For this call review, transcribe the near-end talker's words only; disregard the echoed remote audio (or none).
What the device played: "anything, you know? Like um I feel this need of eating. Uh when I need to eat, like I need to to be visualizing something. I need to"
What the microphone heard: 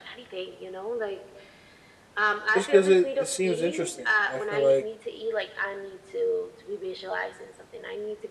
just because it, it seems interesting, and I feel like